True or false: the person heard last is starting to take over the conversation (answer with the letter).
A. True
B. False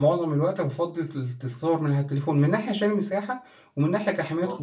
B